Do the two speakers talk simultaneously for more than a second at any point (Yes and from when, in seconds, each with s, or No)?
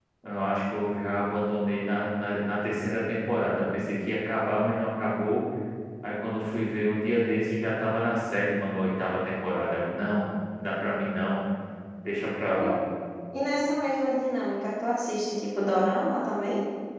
No